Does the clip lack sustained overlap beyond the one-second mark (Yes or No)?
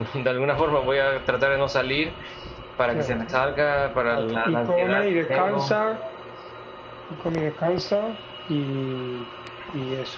No